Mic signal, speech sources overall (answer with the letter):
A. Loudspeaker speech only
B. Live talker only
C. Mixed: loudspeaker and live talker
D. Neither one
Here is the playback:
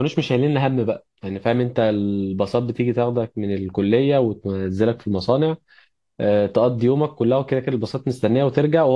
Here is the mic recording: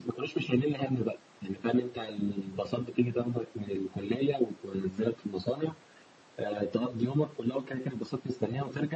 A